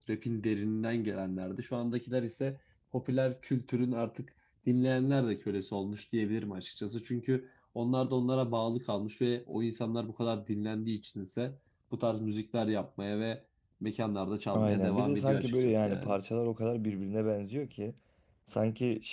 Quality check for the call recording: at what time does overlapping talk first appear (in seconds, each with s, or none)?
14.5 s